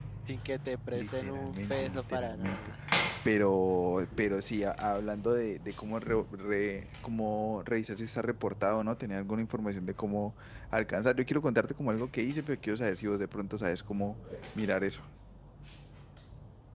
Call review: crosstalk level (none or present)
present